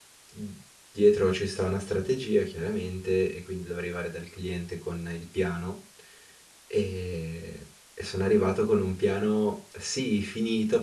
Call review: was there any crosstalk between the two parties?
No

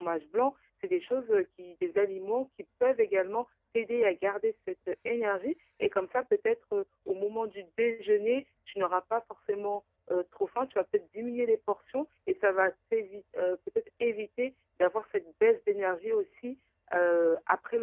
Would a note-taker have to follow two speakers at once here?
No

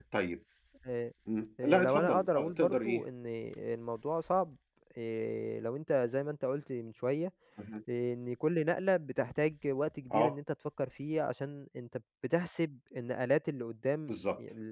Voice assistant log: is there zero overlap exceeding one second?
No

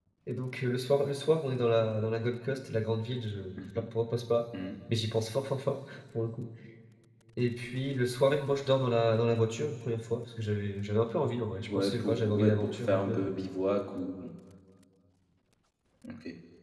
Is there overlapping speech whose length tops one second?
Yes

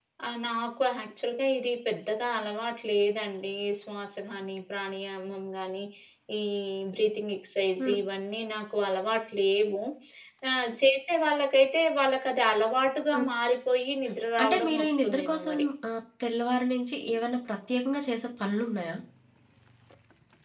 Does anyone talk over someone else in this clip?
Yes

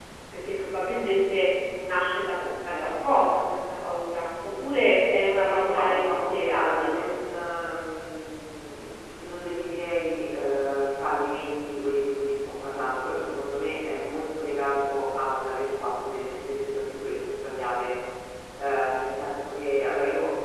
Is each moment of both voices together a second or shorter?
No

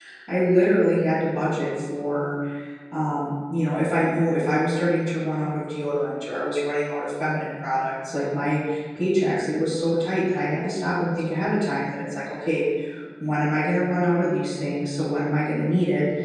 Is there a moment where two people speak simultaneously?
No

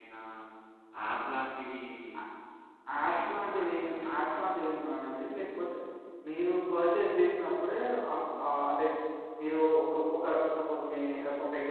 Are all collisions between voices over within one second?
No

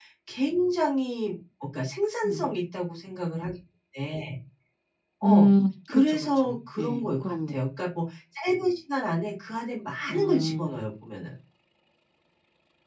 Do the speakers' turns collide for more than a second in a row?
Yes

